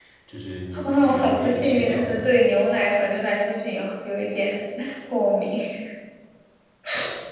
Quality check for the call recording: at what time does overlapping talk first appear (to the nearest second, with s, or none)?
1 s